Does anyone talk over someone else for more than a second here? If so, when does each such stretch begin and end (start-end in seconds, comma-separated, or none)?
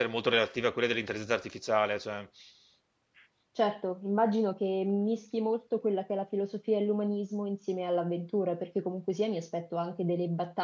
none